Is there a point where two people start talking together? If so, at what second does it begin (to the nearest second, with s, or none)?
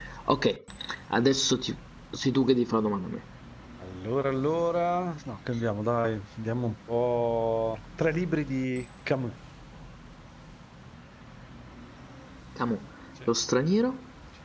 none